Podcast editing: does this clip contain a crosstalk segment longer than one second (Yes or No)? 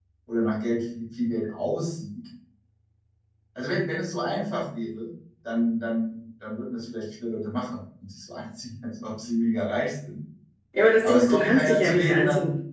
Yes